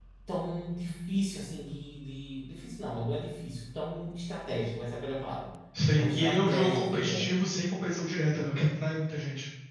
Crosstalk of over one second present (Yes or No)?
Yes